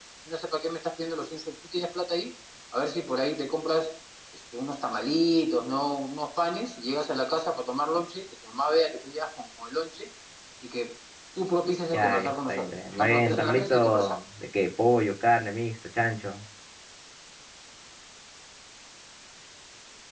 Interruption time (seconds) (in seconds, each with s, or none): 11.9 s